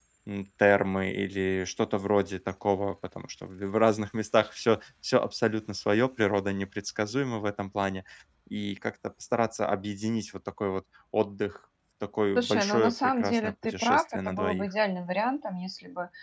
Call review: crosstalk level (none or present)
present